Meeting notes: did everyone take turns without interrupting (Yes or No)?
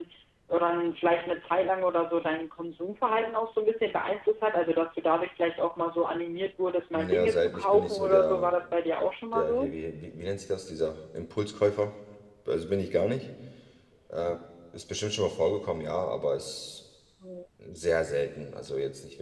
No